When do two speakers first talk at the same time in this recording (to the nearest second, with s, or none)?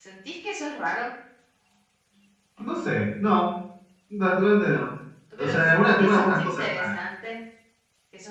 5 s